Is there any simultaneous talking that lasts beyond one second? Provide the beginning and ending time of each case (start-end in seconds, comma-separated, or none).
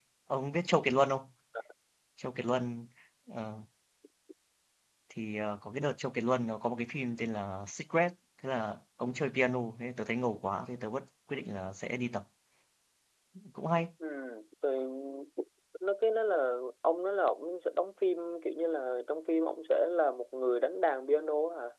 none